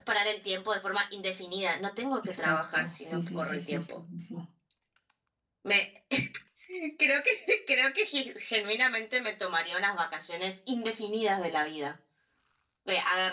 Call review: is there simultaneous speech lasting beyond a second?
Yes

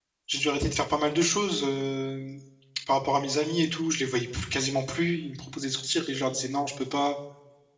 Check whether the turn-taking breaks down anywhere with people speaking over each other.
No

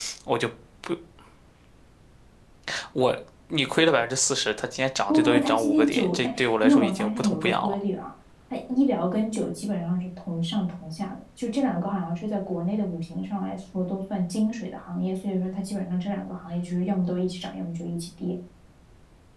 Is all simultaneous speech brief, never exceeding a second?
No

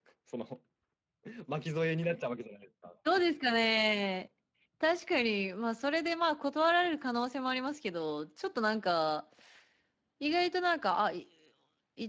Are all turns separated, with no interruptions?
Yes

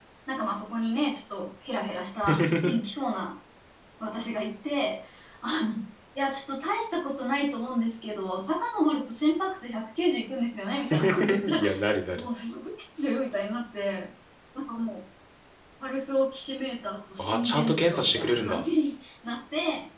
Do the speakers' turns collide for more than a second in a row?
Yes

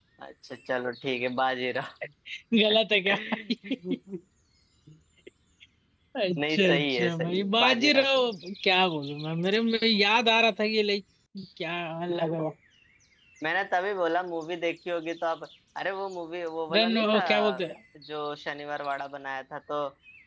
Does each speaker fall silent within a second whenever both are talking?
No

